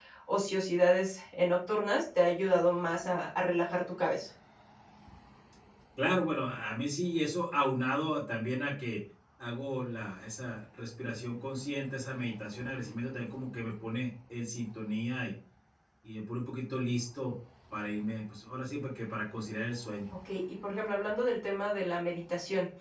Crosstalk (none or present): none